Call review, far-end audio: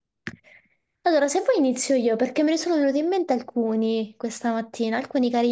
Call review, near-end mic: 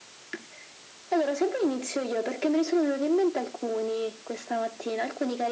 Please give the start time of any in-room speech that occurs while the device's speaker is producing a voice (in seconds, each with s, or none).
none